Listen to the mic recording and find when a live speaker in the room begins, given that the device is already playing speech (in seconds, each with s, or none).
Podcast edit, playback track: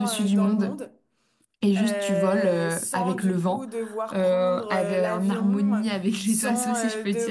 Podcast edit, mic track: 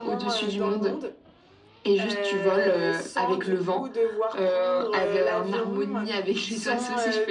none